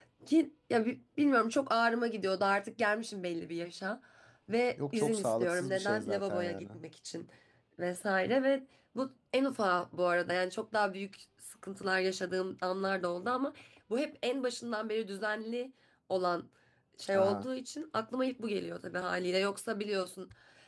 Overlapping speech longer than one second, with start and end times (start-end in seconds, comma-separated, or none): 4.9-6.6